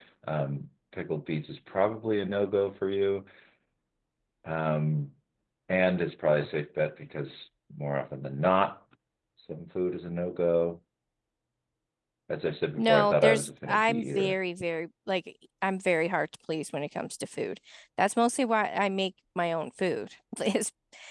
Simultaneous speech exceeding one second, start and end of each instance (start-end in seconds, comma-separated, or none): 12.8-14.4